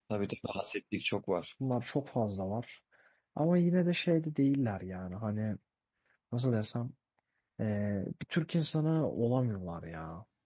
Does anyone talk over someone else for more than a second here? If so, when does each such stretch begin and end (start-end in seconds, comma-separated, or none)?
none